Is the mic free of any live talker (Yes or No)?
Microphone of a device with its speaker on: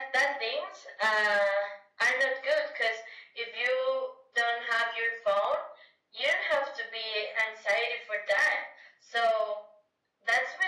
Yes